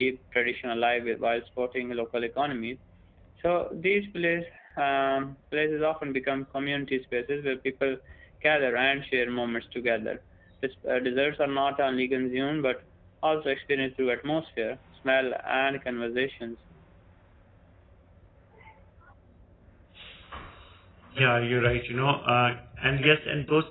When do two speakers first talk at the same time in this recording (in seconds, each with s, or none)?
none